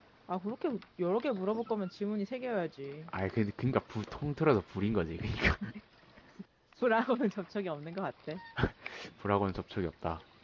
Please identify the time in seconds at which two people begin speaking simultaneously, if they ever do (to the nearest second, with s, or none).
none